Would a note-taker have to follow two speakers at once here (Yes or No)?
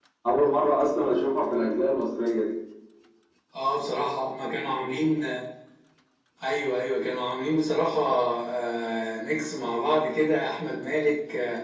No